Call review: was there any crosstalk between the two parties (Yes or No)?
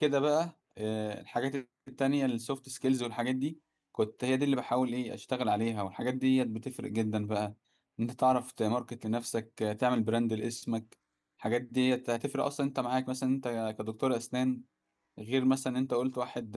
No